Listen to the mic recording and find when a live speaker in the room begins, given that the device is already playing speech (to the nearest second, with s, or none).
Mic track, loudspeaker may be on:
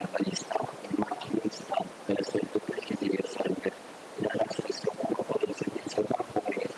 none